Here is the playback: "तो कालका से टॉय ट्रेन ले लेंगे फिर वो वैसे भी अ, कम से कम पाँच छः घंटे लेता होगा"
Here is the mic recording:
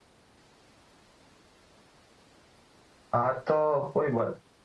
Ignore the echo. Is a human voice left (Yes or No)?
Yes